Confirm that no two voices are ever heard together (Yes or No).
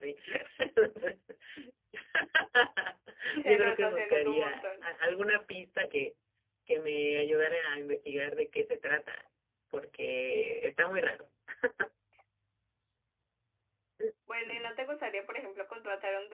No